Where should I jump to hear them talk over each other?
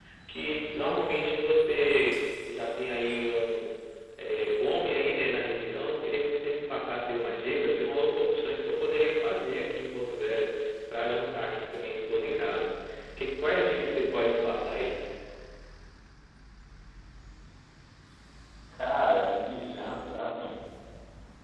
none

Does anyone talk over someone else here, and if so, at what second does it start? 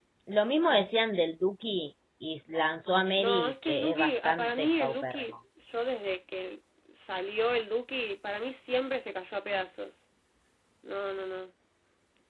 3.2 s

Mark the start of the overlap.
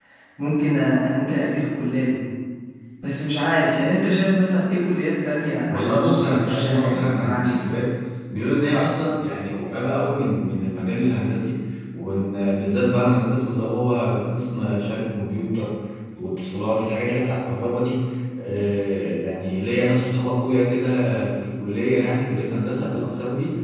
5.7 s

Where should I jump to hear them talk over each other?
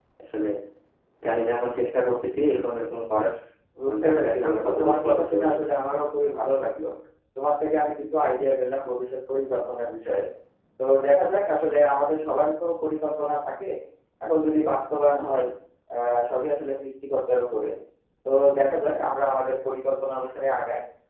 3.9 s

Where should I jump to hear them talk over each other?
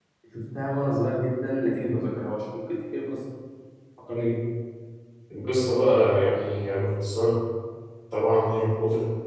none

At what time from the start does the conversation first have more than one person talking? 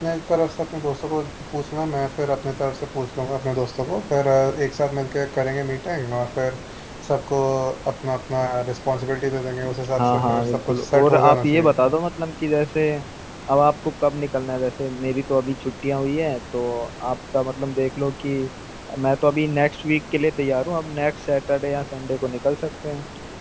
10.0 s

